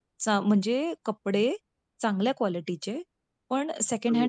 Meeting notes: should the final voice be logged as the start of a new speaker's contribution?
No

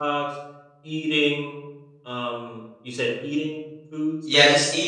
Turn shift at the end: Yes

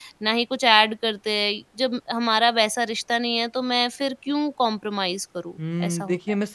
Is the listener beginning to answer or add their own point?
Yes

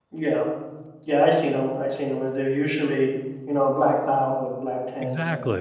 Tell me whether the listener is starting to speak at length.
Yes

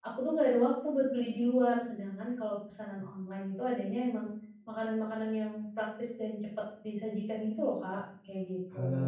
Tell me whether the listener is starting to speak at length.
Yes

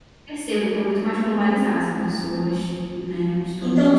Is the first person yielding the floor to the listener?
Yes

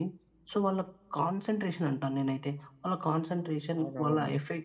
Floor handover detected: No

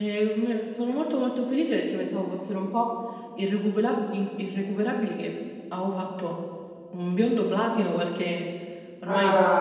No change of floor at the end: Yes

